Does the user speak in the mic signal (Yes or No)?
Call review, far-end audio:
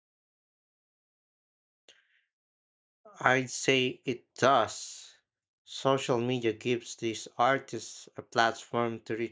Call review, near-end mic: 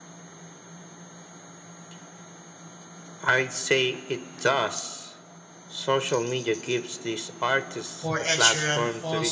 Yes